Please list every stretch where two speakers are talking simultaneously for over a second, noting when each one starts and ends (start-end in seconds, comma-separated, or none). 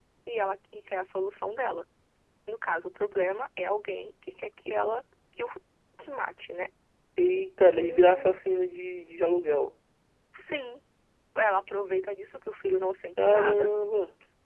none